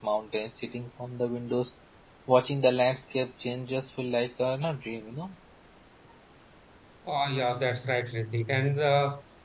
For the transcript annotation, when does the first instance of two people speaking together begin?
none

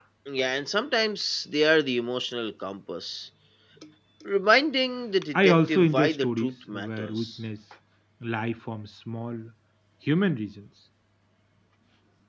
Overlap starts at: 5.3 s

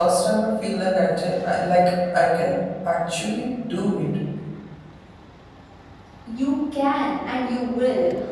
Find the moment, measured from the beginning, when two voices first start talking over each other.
none

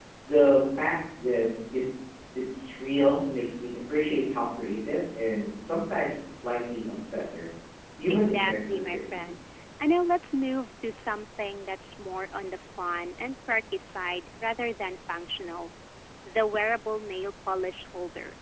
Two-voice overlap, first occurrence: 8.1 s

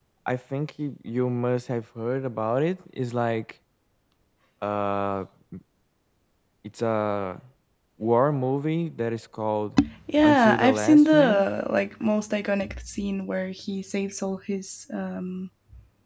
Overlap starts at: 10.2 s

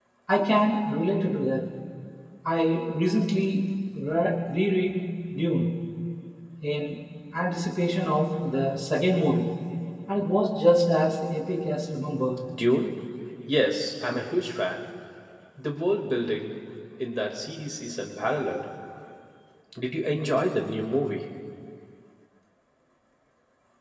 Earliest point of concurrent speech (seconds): none

